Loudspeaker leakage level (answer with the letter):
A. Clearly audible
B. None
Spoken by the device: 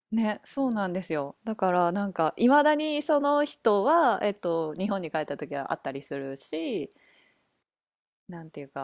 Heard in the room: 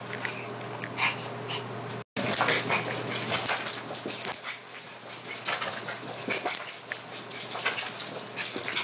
B